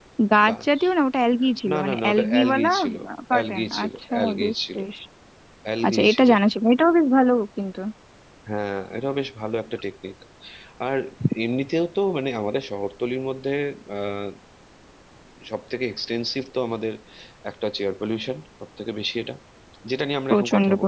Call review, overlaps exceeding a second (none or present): present